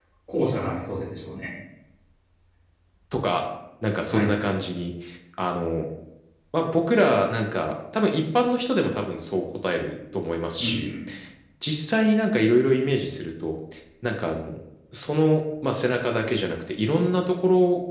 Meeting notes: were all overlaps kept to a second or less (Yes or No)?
Yes